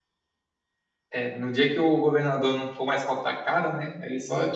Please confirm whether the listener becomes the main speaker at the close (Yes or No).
No